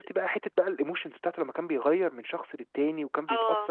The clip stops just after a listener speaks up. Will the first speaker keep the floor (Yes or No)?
Yes